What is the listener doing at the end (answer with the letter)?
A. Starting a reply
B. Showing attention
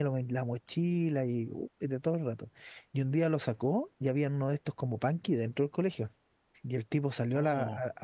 B